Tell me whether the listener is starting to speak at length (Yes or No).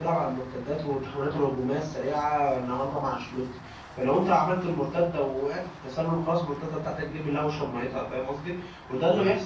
No